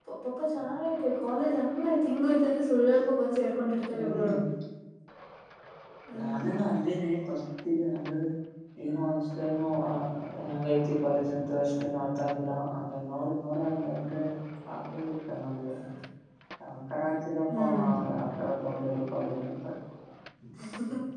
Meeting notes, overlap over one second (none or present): none